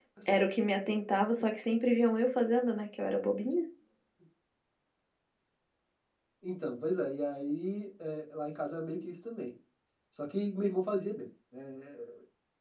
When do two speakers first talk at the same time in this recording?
none

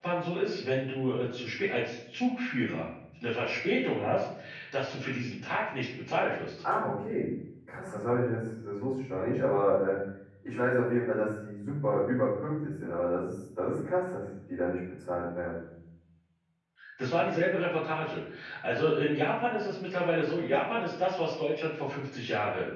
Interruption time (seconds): none

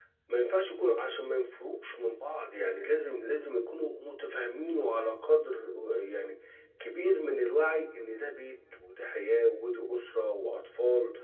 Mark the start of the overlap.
none

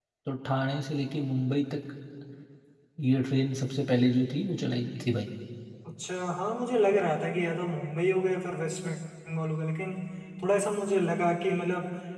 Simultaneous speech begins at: none

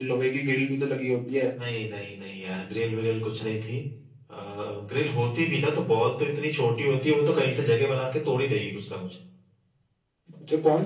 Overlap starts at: none

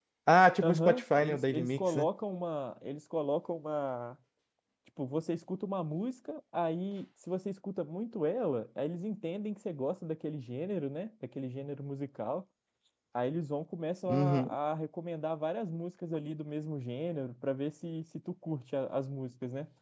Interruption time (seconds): 0.6 s

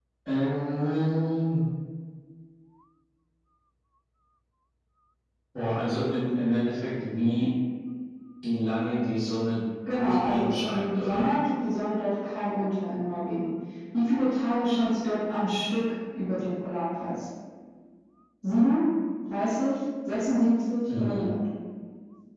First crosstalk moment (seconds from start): 9.9 s

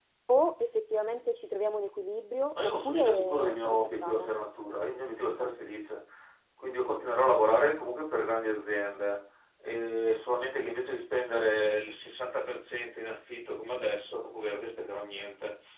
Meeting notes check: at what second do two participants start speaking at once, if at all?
2.5 s

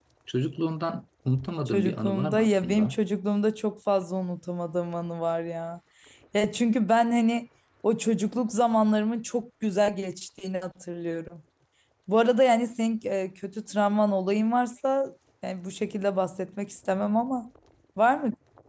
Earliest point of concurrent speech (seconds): 1.7 s

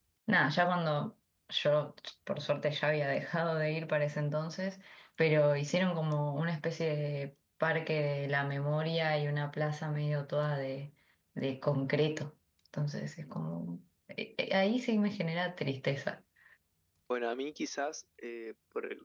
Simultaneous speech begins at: none

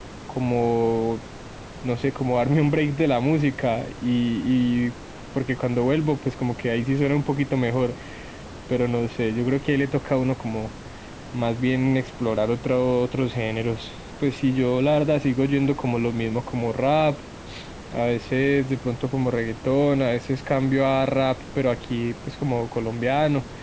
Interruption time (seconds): none

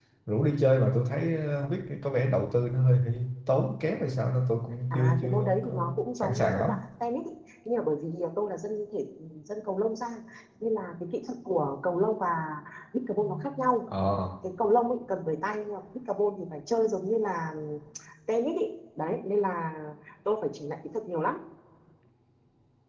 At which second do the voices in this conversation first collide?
4.9 s

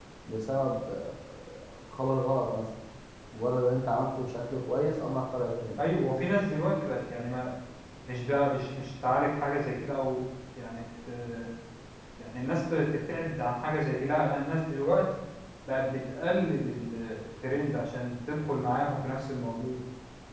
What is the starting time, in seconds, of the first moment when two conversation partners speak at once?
none

